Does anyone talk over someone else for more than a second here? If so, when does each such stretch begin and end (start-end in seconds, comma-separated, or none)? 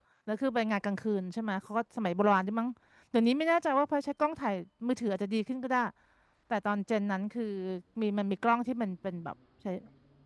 none